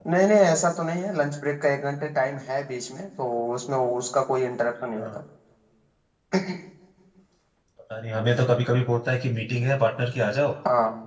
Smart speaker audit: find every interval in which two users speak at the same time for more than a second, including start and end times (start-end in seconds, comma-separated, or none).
none